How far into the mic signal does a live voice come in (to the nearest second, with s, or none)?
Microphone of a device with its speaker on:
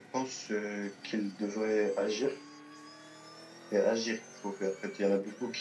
none